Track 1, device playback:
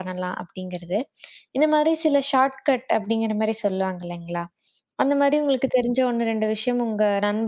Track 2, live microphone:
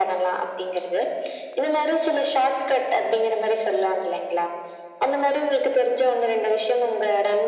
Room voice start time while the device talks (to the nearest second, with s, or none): none